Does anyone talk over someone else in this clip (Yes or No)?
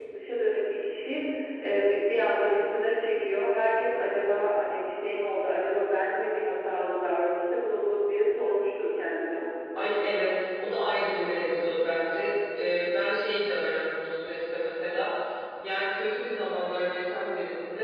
No